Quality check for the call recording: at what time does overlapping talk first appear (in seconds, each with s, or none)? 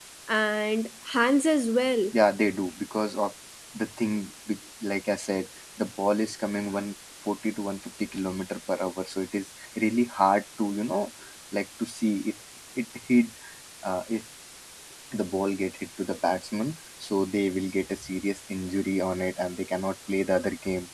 none